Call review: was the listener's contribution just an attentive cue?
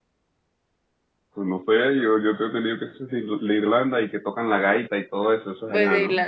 No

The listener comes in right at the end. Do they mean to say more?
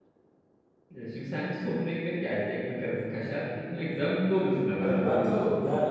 Yes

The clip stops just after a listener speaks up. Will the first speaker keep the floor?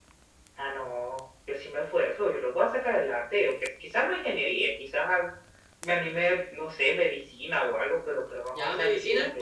No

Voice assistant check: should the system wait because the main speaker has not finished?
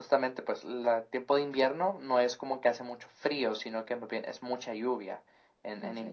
Yes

